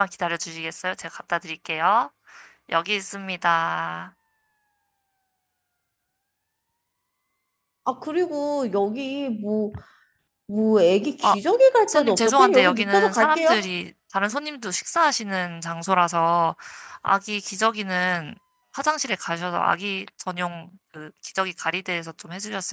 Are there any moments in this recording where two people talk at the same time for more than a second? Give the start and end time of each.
11.9-13.6

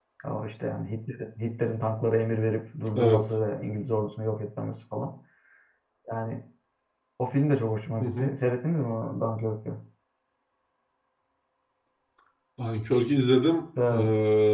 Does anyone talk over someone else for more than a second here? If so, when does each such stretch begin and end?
none

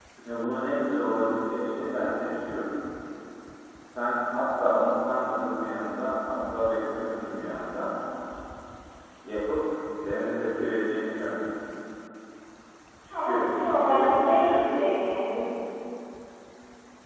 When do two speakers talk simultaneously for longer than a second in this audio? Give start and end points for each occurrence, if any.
13.3-14.5

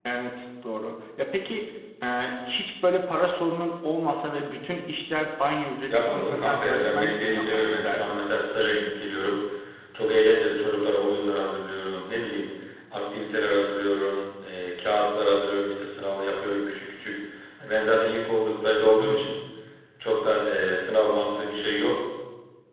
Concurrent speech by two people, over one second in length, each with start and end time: 5.9-8.2

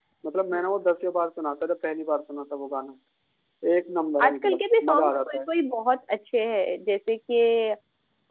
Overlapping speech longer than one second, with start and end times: 4.2-5.5

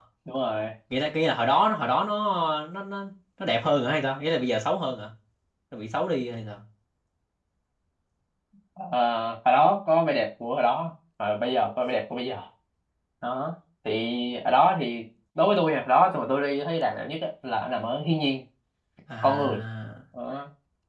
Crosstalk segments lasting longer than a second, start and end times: none

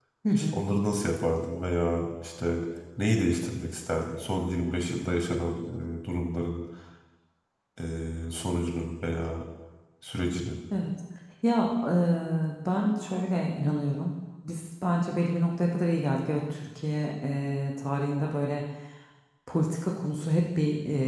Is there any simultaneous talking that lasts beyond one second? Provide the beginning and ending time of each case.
none

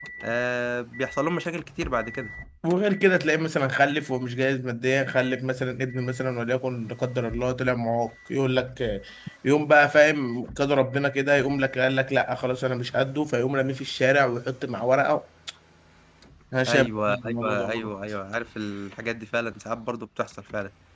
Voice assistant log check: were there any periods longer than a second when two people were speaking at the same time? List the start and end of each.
16.7-17.9

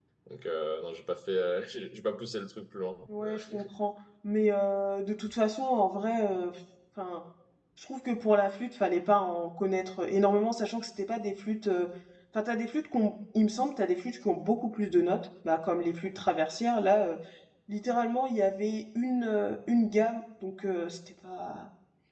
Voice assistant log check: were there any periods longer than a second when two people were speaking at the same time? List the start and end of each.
none

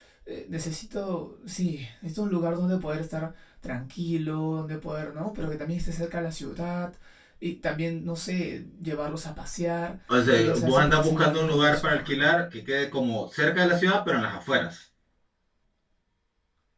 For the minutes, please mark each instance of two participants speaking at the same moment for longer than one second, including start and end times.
10.1-12.3

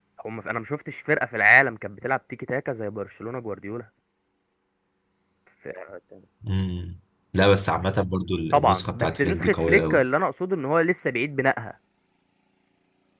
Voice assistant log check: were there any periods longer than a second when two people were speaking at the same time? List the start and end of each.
8.5-10.0

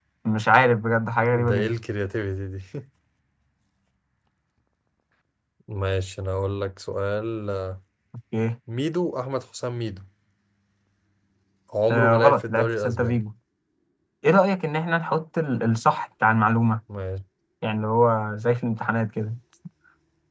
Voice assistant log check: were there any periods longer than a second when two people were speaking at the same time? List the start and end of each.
11.9-13.2

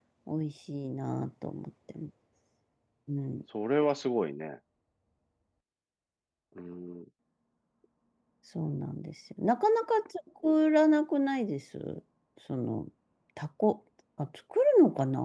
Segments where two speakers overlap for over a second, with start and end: none

